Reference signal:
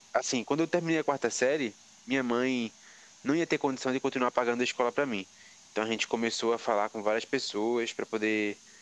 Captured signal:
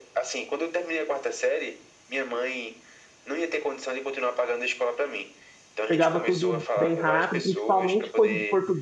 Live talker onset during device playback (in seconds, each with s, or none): 5.9 s